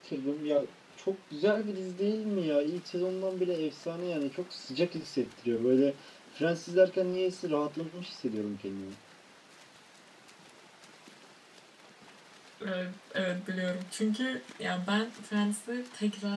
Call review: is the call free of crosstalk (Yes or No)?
Yes